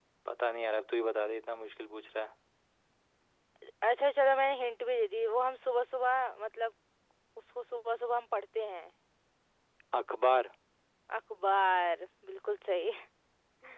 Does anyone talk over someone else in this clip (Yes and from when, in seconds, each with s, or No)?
No